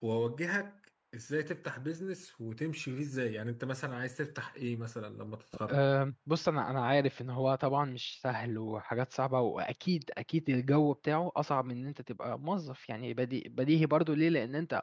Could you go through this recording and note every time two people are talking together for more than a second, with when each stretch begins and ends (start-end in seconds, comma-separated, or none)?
none